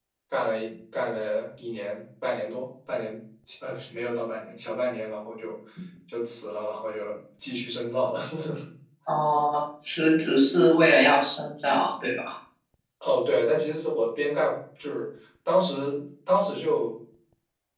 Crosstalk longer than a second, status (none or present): none